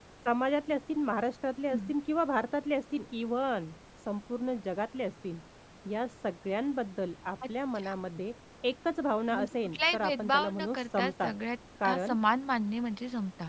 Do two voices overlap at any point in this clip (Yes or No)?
Yes